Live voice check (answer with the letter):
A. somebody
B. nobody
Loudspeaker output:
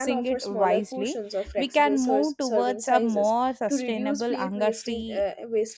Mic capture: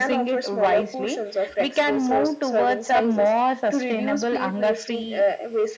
B